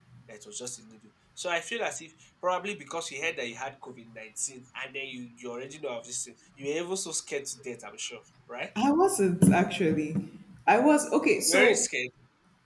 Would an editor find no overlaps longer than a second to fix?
Yes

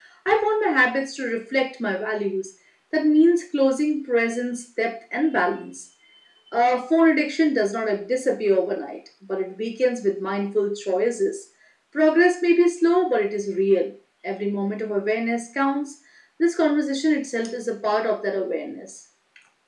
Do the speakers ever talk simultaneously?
No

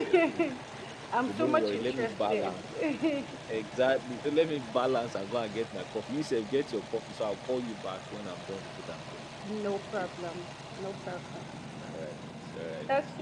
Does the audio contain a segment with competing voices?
Yes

